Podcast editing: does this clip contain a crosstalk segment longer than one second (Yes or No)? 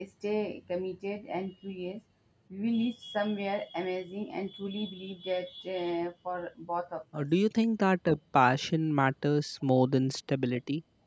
No